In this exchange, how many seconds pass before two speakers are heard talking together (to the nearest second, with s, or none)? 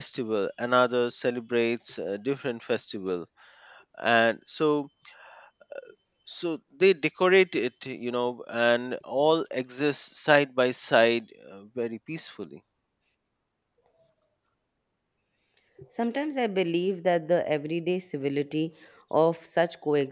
none